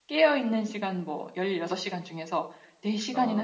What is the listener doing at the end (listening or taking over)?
listening